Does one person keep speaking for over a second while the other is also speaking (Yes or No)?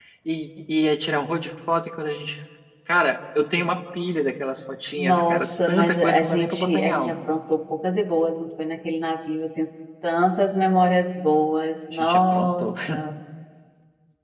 Yes